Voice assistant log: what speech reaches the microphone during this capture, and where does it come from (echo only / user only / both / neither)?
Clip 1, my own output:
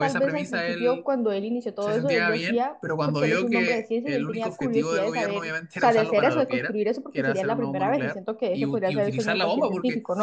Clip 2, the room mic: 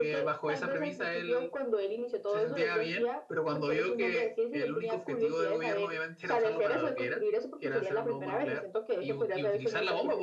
echo only